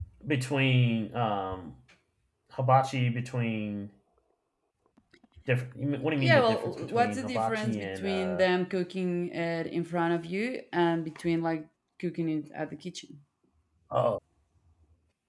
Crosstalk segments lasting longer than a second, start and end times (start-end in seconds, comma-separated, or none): 6.2-8.4